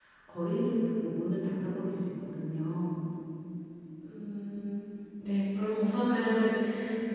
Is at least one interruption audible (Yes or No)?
No